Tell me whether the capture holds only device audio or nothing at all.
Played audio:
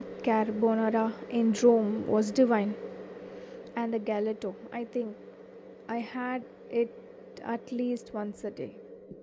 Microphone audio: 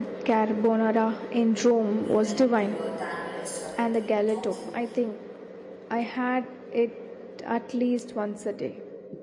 No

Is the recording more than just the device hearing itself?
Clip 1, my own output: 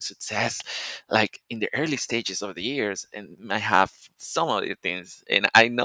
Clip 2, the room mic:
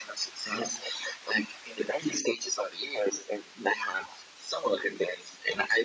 No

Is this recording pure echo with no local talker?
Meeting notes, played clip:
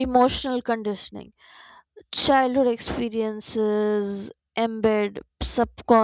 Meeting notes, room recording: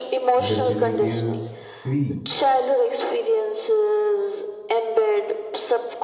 No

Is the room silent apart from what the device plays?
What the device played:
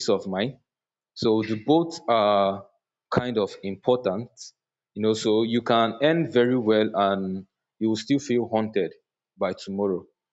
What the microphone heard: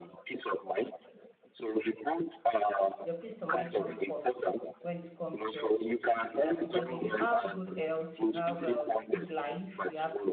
No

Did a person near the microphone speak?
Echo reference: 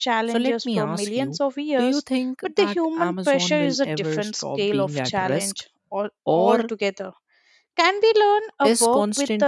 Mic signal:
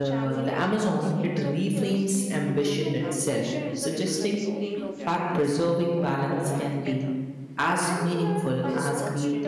Yes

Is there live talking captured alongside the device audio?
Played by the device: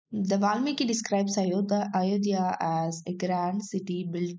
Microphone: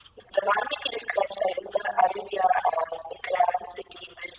No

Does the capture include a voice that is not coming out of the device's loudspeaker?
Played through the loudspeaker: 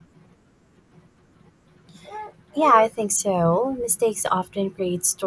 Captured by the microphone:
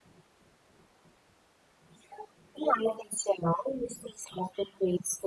No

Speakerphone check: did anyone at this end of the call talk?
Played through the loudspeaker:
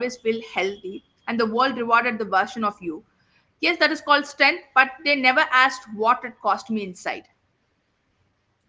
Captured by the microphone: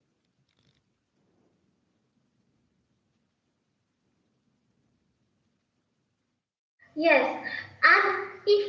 Yes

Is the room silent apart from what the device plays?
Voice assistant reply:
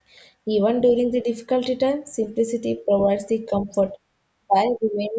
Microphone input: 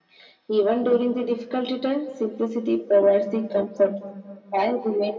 Yes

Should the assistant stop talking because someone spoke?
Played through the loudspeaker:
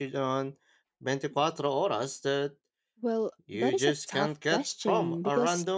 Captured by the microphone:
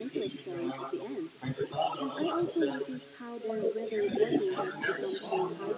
Yes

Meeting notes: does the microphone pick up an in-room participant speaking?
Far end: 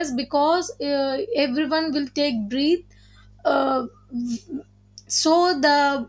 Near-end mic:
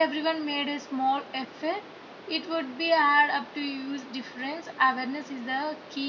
Yes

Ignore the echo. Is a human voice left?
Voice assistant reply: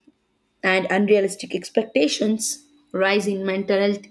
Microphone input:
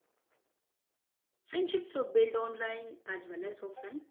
Yes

